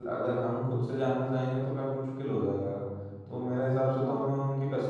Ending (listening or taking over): listening